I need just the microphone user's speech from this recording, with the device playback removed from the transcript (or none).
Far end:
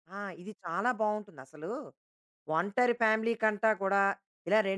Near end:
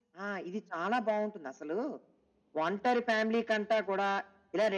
none